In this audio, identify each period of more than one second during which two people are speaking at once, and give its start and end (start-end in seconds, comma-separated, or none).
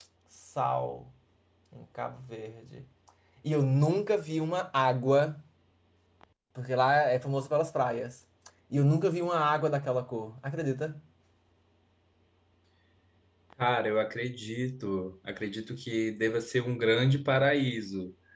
none